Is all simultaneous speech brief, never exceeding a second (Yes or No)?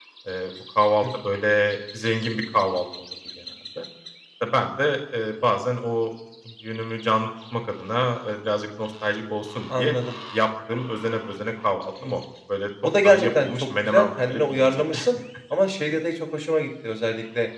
No